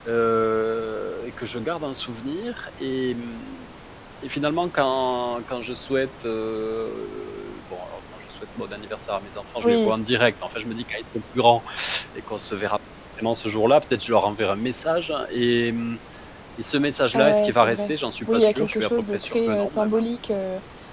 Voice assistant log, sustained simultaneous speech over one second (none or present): present